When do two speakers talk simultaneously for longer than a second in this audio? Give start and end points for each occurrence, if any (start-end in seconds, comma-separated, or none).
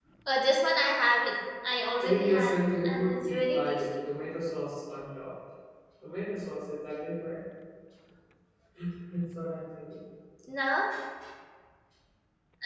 2.0-3.9